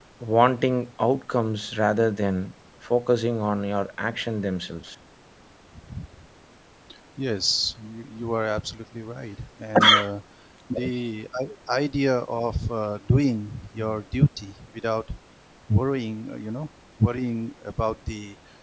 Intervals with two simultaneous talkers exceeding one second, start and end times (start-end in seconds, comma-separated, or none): none